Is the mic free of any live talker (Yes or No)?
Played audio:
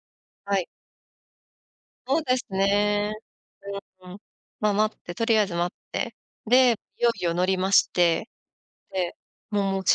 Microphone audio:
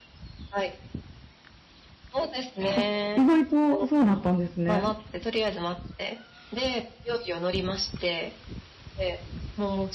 No